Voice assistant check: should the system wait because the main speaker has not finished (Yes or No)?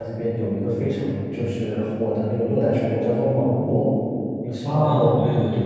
No